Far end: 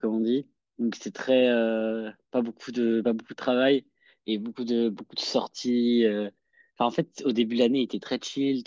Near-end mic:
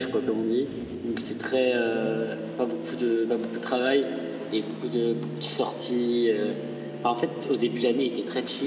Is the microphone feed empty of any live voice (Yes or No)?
Yes